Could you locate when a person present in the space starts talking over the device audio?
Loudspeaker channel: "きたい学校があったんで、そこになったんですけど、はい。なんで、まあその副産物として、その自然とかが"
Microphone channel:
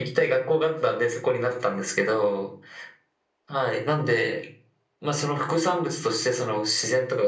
none

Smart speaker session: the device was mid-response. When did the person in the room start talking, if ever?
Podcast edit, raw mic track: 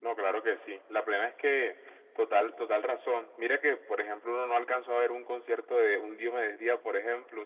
none

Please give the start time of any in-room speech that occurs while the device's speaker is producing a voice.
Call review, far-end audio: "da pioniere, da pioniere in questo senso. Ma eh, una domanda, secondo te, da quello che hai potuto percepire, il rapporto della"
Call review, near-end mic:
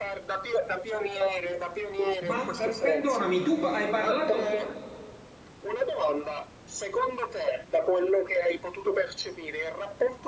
2.2 s

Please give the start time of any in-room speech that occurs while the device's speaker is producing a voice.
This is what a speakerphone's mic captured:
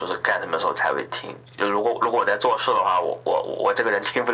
none

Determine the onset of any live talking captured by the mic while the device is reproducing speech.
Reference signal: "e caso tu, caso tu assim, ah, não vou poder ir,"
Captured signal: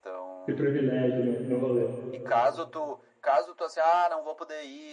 0.5 s

